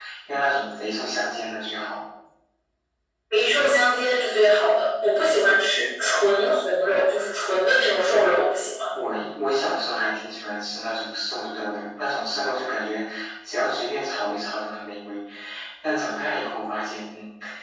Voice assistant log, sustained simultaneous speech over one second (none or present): none